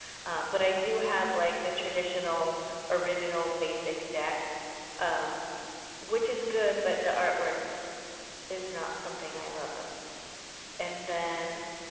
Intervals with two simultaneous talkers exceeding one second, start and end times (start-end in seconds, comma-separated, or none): none